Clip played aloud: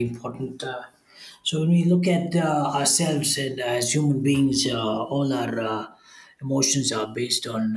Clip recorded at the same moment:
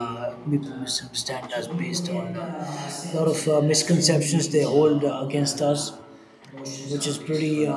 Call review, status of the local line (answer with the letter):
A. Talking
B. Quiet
A